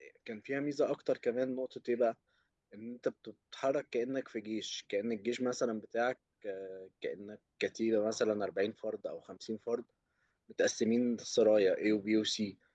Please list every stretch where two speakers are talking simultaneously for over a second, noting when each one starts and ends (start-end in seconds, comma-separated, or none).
none